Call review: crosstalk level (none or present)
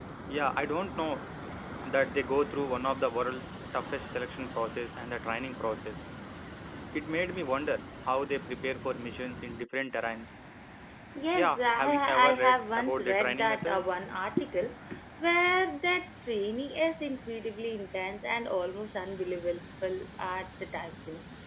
present